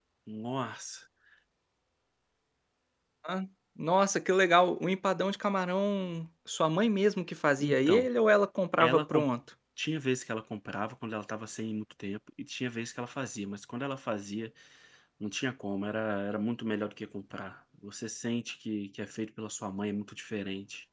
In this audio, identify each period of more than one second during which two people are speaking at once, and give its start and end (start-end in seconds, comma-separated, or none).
none